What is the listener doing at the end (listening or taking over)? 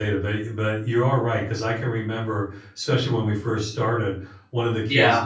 listening